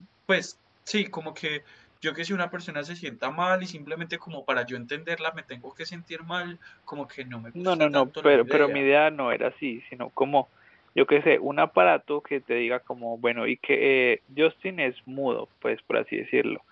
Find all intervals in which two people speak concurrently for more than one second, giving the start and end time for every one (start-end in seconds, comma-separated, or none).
7.6-8.8